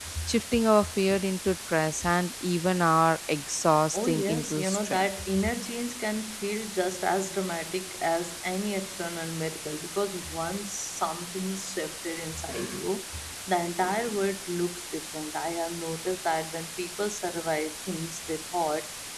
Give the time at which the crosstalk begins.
3.9 s

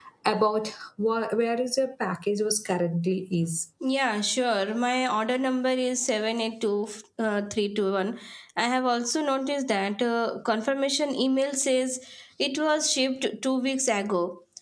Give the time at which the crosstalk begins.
none

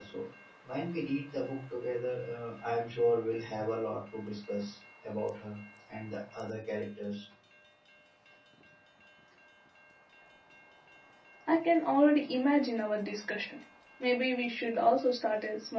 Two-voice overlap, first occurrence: none

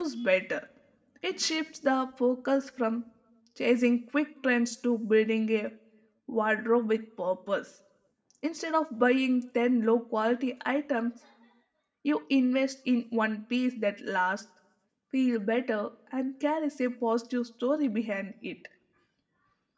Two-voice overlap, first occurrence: none

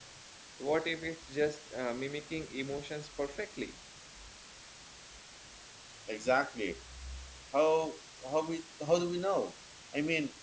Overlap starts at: none

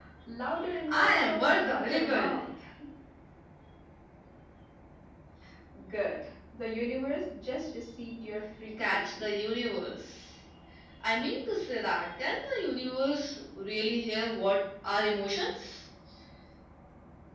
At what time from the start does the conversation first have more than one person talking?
0.9 s

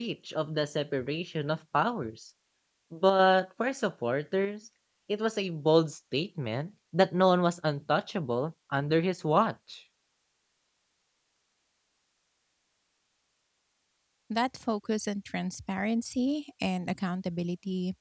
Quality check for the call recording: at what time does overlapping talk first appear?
none

